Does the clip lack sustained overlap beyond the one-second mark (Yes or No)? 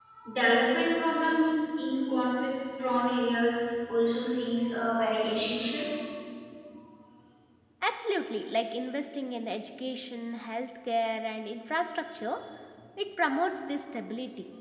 Yes